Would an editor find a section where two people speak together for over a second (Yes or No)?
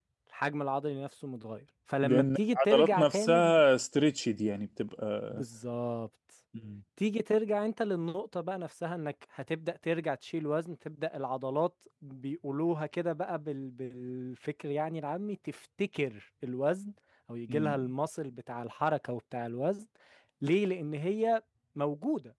Yes